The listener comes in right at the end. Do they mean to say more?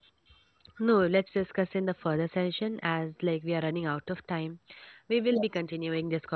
No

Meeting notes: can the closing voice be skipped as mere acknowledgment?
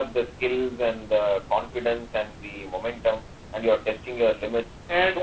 Yes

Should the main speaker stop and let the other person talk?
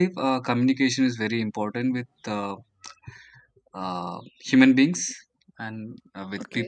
Yes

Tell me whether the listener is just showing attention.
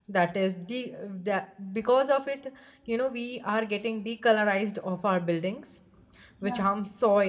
Yes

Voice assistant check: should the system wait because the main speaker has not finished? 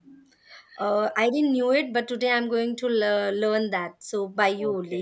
No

